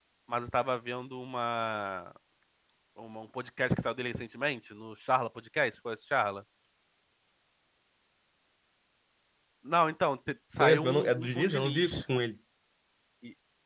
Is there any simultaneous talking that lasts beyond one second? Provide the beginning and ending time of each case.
10.6-11.8

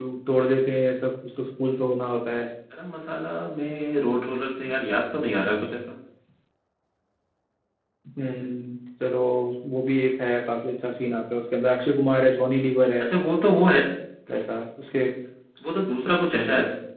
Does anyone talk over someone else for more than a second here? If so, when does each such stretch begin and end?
none

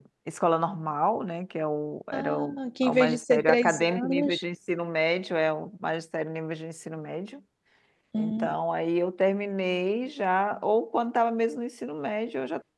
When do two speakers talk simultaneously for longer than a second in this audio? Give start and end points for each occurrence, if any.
2.1-4.4

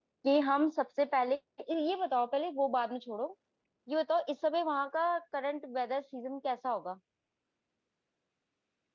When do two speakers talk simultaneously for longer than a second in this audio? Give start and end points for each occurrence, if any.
none

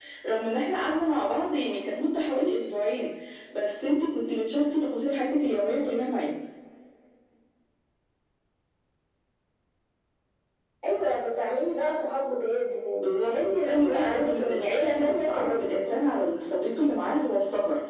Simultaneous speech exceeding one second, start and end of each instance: 13.0-15.8

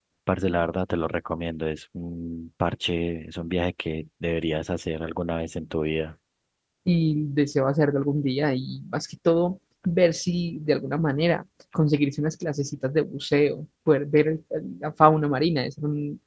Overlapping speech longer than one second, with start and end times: none

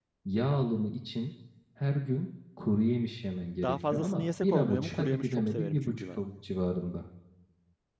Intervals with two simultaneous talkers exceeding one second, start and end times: 3.6-6.2

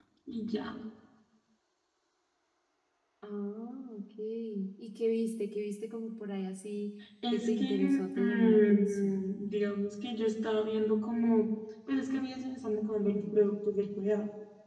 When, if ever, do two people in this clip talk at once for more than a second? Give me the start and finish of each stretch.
7.3-9.2

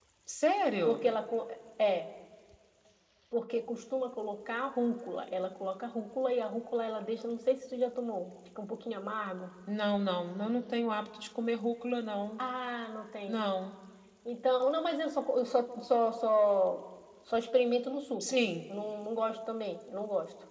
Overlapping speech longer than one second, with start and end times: none

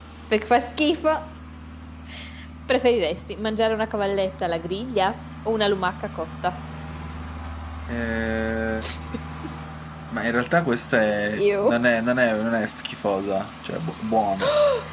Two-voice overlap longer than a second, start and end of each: none

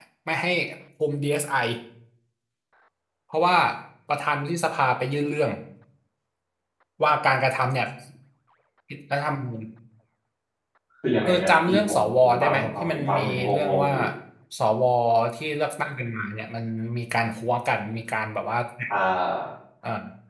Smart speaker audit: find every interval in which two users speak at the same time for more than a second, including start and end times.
11.2-13.9

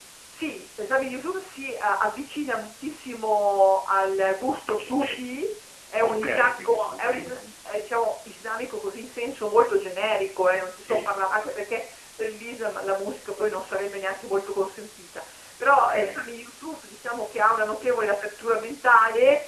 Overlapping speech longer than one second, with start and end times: 6.0-7.4

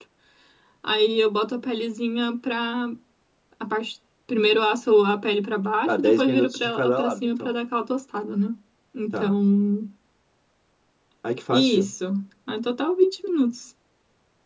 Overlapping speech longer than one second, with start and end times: 5.9-7.5

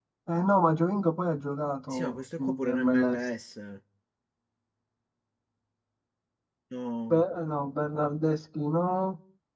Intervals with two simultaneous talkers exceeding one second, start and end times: 1.9-3.2

